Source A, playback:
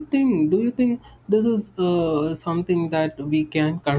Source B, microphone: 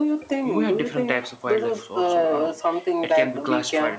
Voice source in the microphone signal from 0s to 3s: both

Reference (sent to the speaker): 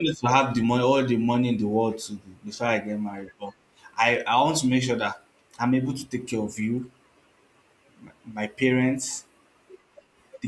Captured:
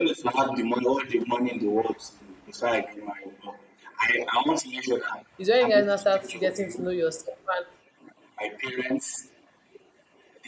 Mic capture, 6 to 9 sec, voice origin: both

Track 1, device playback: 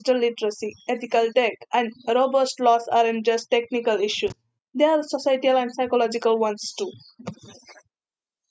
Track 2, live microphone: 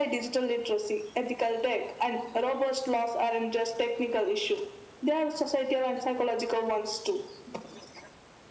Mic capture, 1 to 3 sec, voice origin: echo only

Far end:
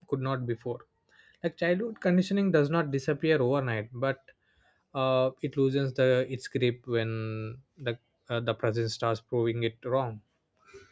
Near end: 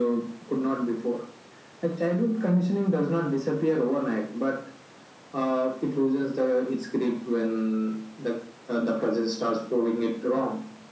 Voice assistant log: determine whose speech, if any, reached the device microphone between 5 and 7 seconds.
echo only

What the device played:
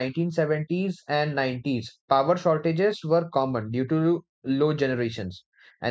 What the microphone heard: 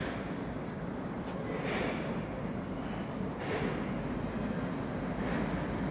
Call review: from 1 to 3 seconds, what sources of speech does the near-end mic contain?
neither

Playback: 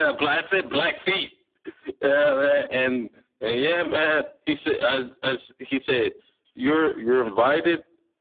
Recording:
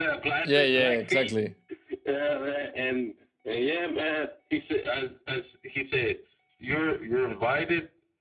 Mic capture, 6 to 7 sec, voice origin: echo only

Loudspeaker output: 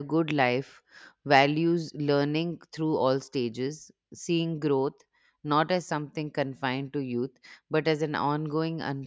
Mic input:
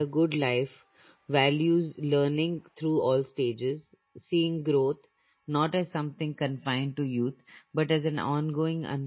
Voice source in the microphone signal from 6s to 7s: echo only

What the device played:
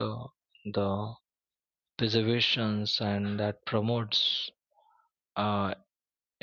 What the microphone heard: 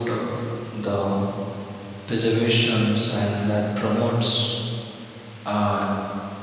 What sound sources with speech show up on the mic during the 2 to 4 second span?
echo only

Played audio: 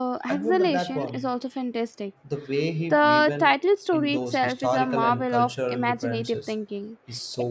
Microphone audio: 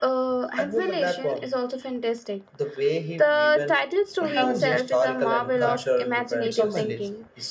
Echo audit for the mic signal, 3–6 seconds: both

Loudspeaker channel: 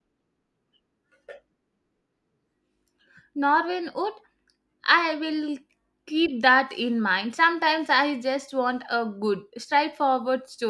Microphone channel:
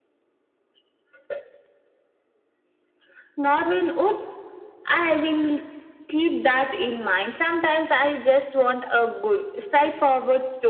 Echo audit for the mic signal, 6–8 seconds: echo only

